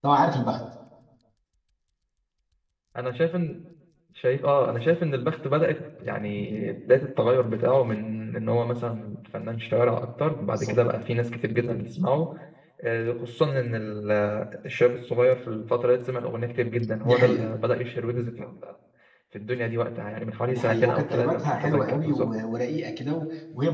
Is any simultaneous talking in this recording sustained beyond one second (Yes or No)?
Yes